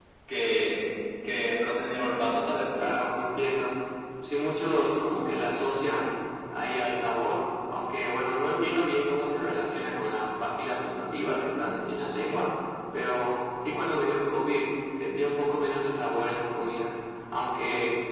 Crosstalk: none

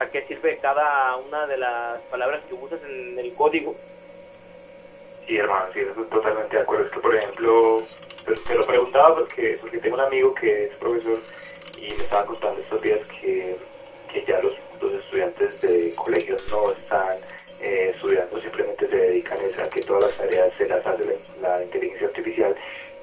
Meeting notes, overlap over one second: none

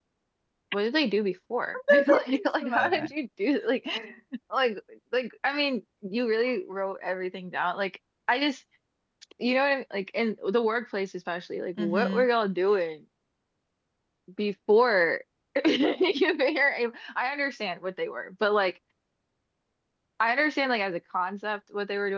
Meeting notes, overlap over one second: present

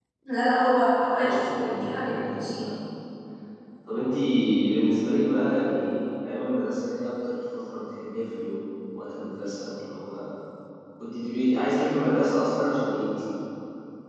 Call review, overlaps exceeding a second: present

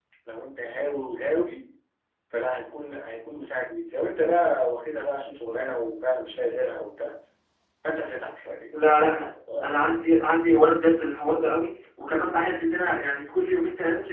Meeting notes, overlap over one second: none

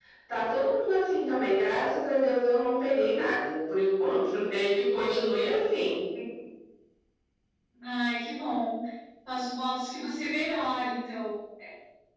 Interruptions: none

